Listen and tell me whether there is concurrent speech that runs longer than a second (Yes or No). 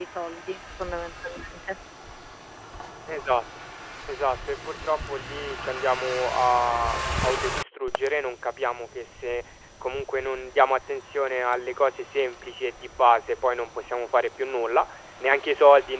No